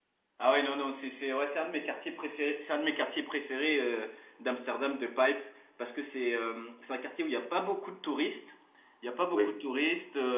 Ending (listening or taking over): listening